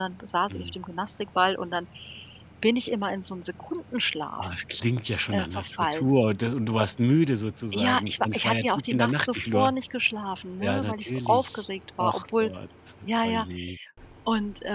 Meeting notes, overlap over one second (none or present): present